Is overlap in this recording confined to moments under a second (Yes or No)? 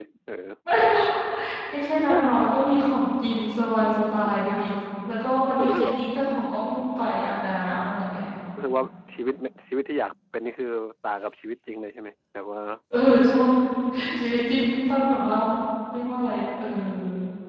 Yes